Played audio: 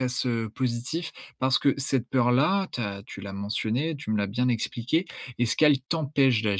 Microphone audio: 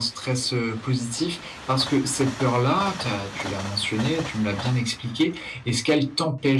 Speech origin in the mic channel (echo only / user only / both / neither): echo only